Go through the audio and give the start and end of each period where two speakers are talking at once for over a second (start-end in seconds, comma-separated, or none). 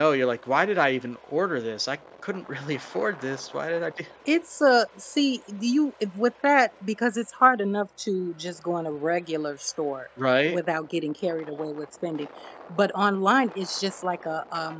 none